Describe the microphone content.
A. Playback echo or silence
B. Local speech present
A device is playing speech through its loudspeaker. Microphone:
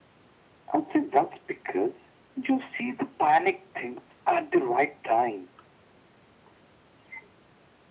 A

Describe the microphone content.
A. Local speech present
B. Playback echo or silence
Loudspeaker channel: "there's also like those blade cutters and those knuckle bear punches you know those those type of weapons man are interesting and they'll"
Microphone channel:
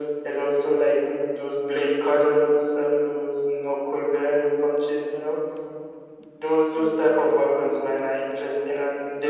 A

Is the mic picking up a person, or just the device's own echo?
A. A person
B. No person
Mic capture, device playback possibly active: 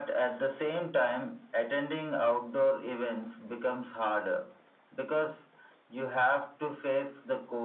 B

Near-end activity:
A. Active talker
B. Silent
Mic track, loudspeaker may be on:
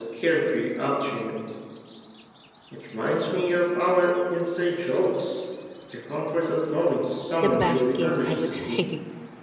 A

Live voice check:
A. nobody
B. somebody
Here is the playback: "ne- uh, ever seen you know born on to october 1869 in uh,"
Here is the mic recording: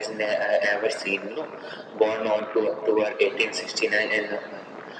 A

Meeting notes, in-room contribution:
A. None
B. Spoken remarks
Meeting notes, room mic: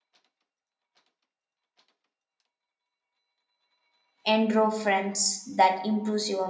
B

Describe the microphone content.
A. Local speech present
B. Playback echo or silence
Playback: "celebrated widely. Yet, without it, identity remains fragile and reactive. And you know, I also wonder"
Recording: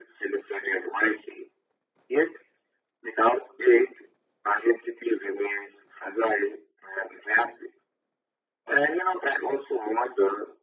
B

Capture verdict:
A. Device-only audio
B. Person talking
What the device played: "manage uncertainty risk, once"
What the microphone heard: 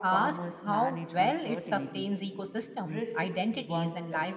B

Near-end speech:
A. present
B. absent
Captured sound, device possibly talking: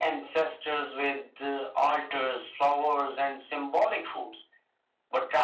B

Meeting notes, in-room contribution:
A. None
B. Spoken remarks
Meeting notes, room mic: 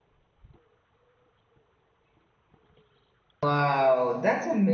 B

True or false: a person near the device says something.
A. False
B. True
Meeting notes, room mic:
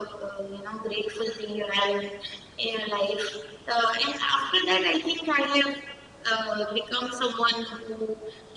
A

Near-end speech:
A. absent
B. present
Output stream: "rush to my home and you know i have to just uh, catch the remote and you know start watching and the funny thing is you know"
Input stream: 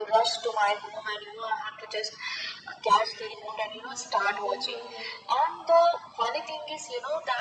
B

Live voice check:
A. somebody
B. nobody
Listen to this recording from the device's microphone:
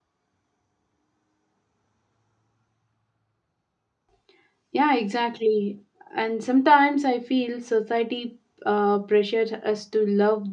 A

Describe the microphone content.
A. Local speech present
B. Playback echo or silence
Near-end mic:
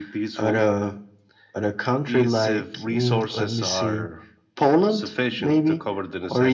B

